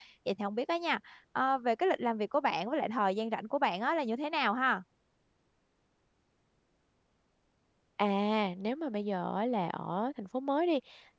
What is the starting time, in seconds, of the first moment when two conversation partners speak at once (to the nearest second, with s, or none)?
none